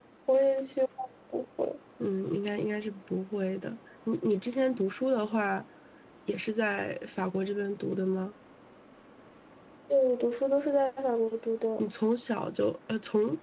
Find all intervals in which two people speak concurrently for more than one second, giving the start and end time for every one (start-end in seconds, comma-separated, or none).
none